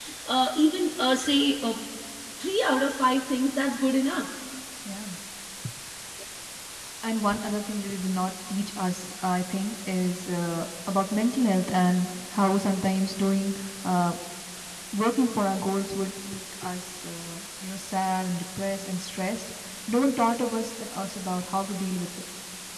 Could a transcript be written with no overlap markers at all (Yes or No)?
Yes